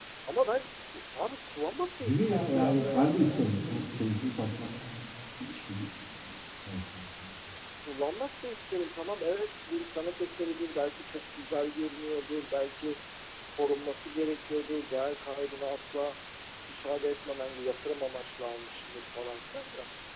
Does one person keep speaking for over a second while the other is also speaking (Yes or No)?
Yes